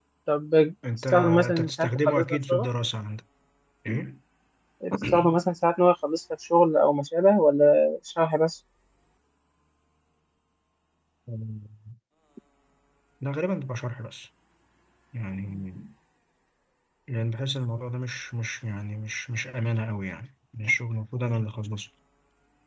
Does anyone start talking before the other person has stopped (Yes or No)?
Yes